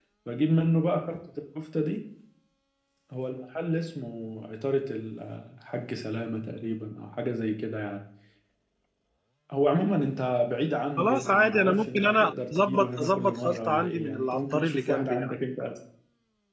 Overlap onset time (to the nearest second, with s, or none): 11 s